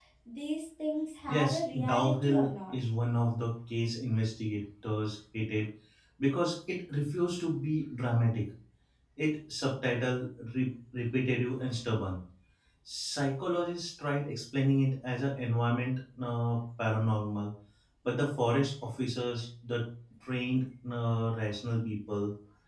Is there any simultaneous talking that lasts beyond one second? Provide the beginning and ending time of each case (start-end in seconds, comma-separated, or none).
1.3-2.7